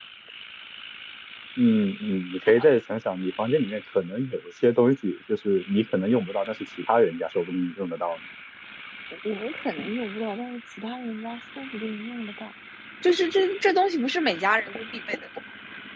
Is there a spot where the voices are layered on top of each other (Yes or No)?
No